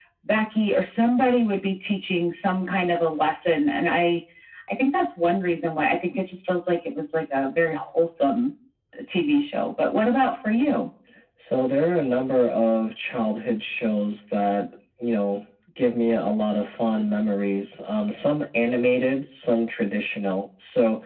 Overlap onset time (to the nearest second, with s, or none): none